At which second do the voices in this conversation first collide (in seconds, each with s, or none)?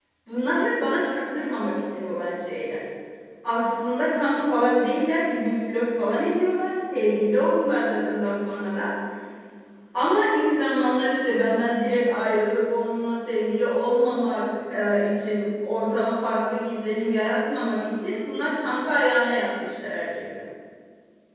none